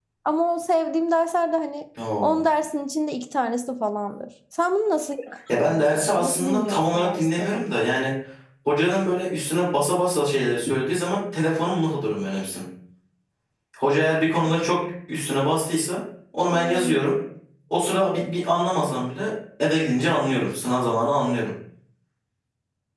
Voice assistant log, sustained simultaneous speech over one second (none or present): present